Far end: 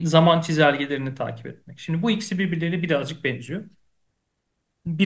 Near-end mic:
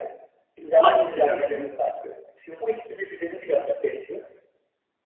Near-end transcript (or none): hangisi diyorsun?